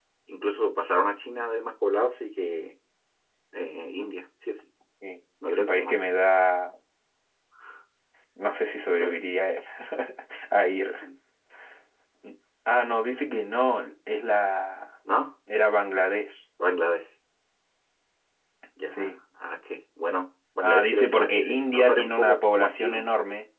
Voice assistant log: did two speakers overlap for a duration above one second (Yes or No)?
Yes